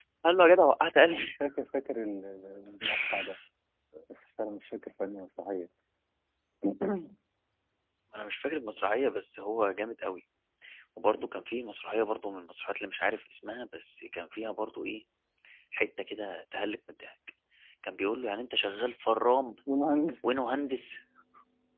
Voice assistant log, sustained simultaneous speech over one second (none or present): none